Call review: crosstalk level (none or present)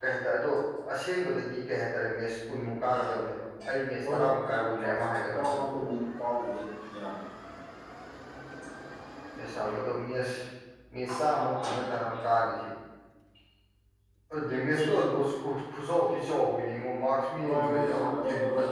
present